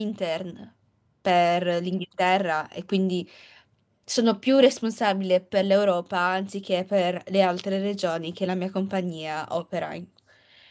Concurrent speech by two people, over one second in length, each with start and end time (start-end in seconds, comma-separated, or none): none